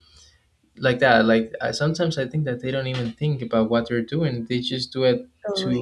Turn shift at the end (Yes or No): No